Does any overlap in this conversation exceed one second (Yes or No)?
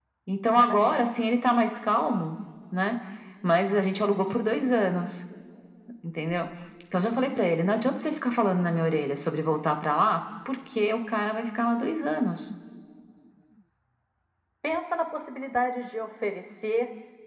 No